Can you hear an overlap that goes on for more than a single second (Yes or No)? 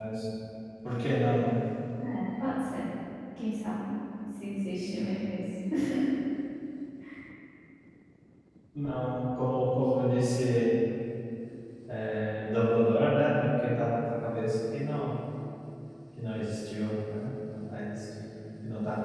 No